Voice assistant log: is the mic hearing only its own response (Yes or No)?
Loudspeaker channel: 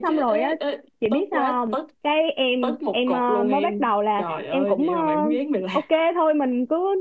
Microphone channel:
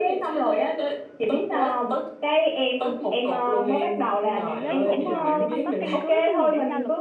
No